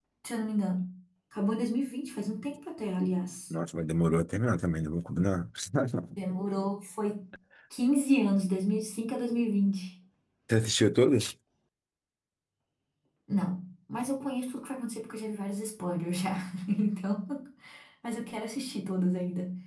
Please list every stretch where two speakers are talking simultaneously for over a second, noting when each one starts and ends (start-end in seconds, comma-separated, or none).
none